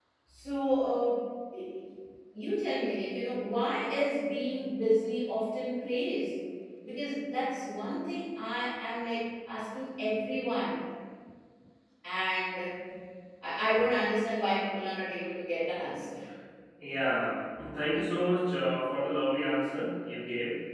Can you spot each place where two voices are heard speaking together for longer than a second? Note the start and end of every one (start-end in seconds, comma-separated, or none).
none